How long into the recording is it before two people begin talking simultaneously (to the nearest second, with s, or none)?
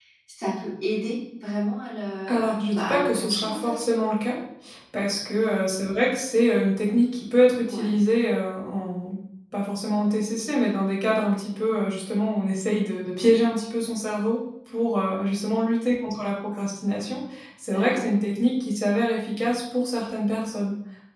2 s